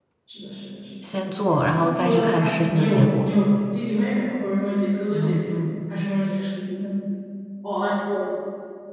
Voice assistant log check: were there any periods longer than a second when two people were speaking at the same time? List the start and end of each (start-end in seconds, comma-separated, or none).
1.0-3.3